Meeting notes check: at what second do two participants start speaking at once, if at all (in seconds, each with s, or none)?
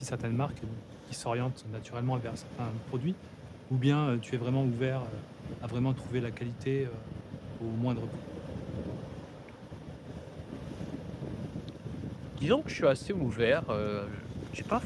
none